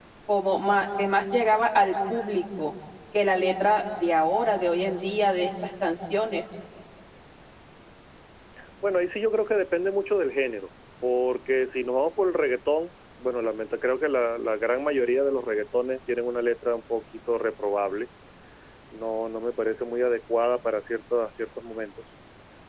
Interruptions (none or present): none